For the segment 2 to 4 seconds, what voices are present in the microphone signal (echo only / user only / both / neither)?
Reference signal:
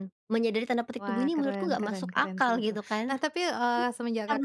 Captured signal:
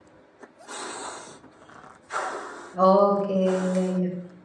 user only